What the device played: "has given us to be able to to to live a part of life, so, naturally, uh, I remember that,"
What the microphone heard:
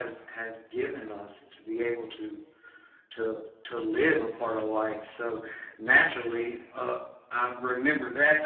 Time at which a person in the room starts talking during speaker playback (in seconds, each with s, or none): none